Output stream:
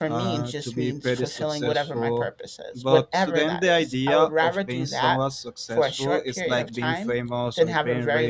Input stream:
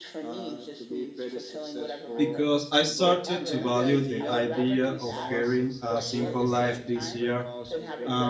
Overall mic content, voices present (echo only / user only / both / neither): both